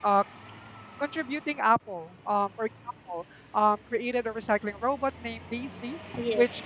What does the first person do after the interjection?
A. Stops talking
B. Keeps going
B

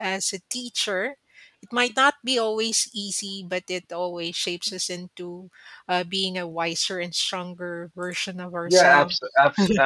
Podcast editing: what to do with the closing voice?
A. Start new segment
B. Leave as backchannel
A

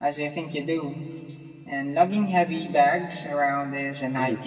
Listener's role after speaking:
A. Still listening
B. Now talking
B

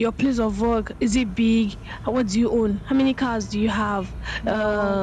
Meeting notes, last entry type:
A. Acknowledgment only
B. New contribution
A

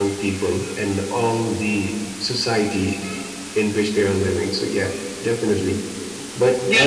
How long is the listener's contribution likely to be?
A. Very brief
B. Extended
B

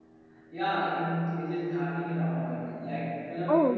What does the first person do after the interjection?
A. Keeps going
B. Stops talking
B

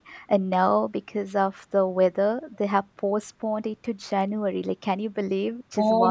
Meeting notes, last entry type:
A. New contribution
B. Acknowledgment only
A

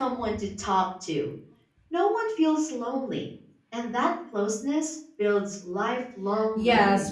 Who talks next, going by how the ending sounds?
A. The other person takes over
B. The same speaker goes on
A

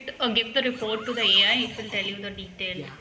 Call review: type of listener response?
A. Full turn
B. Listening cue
A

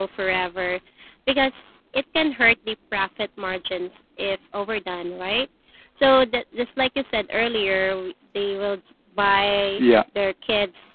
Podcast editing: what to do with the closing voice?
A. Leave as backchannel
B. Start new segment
A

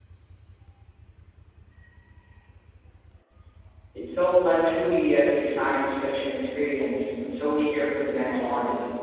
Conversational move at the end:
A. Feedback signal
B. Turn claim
B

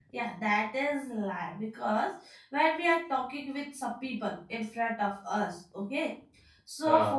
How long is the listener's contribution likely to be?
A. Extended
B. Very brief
B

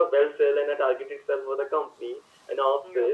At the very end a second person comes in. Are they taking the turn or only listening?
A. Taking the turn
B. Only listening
B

